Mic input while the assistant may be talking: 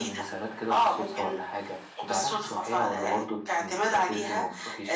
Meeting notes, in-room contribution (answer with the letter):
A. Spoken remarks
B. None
B